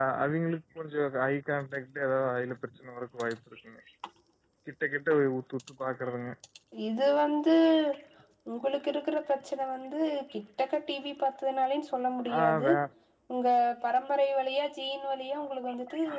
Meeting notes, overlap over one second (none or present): none